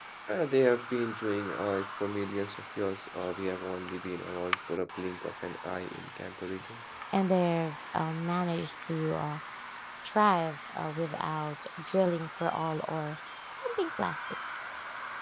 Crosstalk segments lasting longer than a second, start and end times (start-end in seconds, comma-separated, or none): none